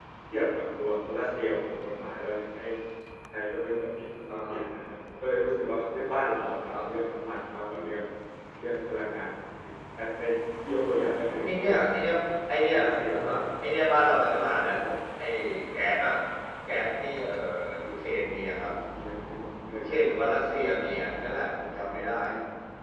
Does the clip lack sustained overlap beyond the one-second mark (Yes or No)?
Yes